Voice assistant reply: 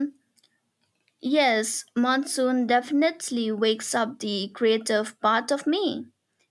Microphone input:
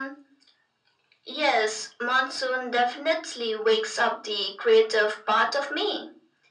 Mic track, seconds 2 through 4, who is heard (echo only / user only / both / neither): echo only